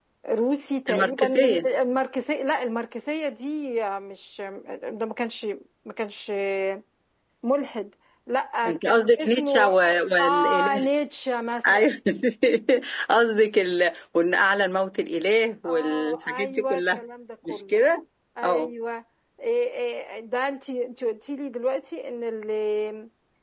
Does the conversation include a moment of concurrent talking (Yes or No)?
Yes